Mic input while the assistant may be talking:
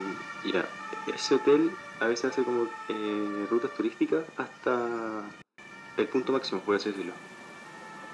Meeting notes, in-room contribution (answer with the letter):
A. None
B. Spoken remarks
A